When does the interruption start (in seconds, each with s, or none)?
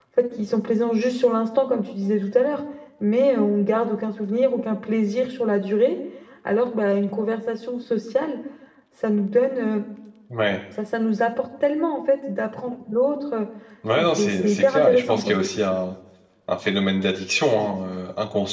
14.0 s